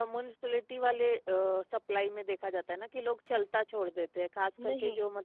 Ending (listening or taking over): taking over